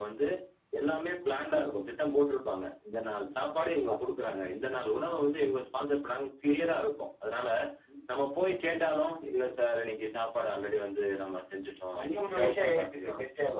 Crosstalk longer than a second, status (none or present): present